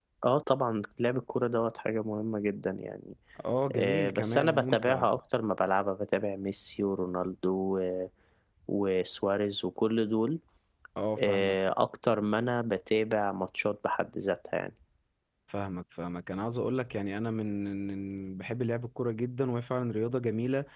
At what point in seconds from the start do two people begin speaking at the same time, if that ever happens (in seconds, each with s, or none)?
3.7 s